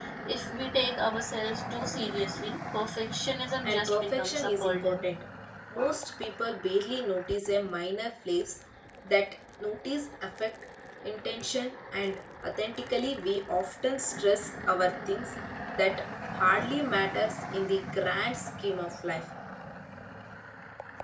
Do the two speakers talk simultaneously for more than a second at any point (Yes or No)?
Yes